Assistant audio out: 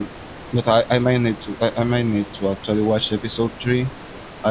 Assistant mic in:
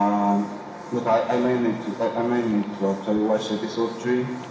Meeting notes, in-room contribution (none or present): none